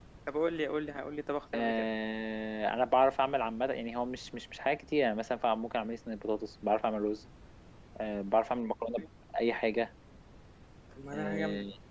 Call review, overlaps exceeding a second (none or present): none